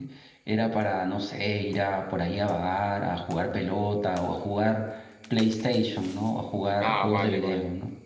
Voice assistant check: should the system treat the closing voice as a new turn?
Yes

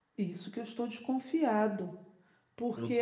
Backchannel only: No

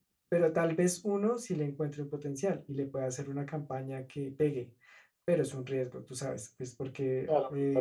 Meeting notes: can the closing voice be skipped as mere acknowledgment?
No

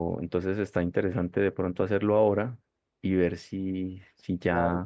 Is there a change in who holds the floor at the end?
Yes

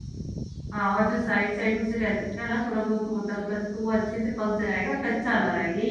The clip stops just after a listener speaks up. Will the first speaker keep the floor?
No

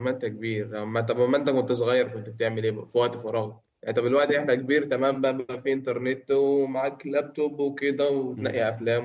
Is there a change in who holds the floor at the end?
No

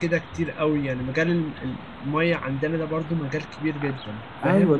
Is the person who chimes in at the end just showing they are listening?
No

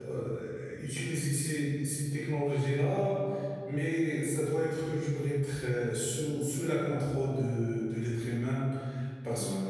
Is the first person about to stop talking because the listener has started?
Yes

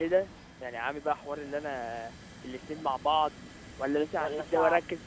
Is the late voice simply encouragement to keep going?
Yes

